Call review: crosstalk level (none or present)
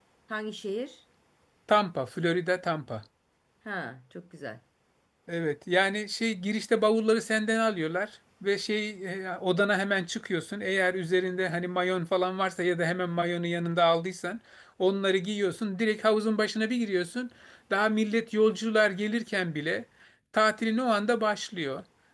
none